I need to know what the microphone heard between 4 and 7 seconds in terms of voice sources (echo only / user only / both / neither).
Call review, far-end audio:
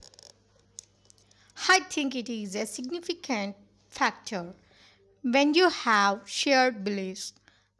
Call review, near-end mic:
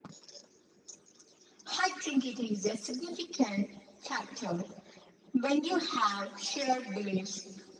echo only